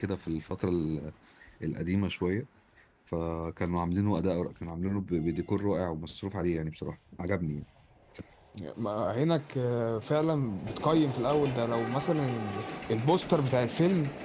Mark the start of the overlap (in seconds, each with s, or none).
none